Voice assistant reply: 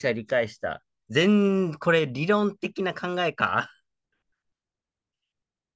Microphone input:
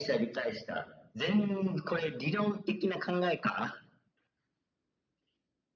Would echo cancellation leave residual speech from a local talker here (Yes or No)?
No